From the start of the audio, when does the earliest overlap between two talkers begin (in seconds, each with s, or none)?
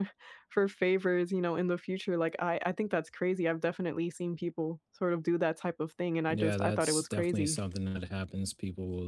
6.3 s